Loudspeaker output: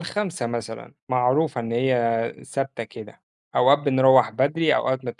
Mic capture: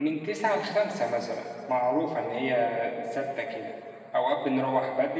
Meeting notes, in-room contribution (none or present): none